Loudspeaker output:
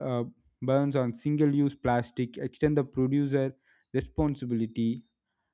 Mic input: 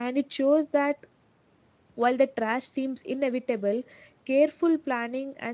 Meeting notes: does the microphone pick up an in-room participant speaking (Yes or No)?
Yes